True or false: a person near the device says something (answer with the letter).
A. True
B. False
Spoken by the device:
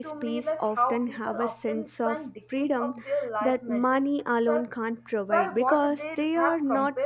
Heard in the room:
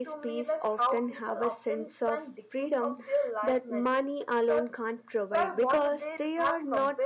B